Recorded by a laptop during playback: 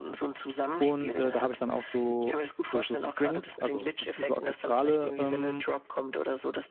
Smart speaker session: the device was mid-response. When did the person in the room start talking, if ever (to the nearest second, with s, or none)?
1 s